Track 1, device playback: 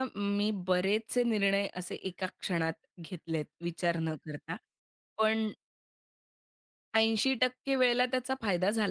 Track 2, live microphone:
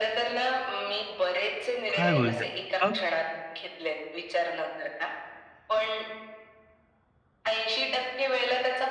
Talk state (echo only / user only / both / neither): both